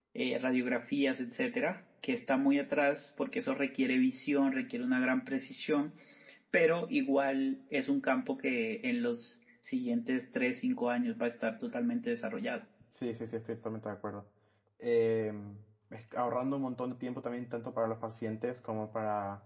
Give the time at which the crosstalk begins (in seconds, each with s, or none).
none